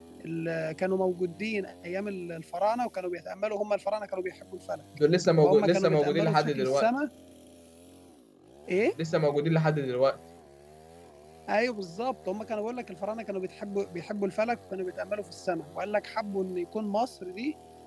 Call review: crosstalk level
present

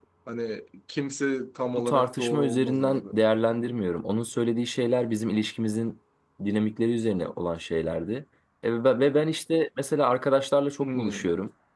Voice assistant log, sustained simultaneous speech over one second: present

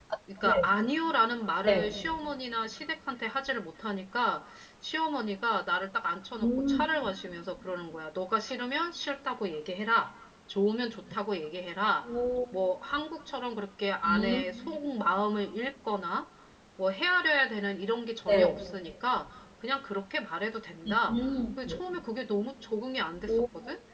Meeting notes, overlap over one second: none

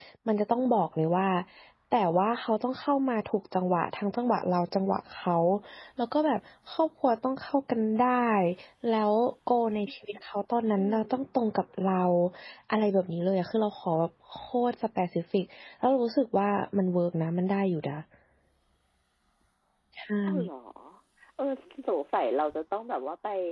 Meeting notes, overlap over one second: none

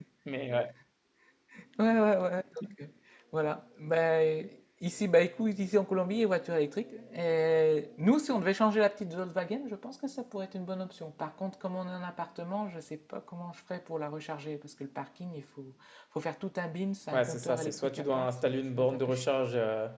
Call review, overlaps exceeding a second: present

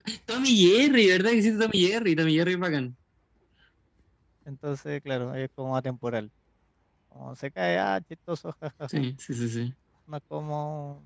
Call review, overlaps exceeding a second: none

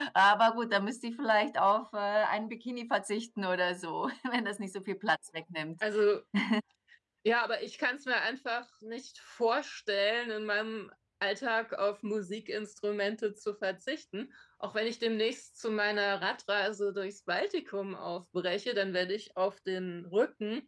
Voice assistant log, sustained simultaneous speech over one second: none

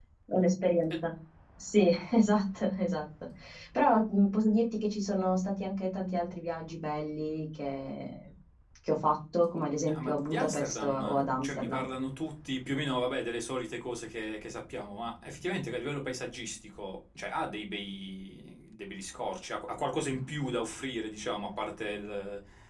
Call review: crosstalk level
present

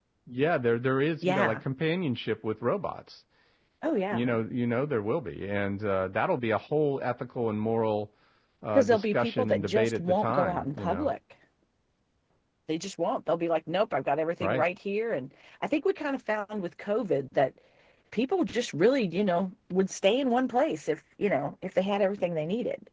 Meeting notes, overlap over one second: present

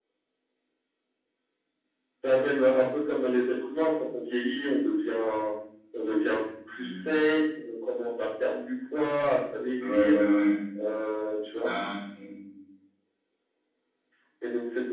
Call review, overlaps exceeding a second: none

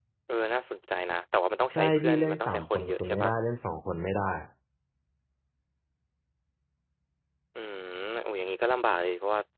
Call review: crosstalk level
present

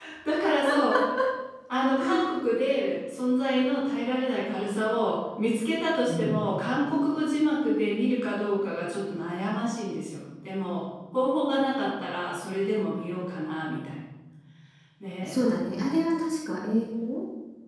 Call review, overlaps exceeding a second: none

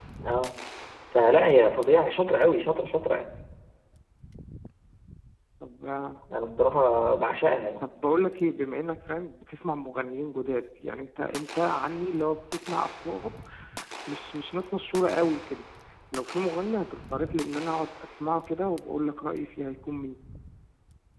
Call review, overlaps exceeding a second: none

